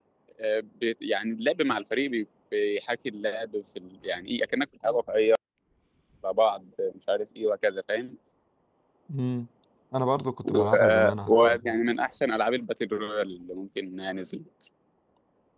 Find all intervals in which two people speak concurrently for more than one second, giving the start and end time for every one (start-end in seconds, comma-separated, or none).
10.4-11.8